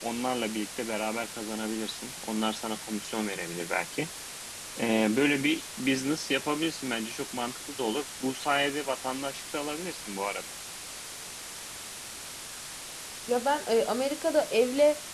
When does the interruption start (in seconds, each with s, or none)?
none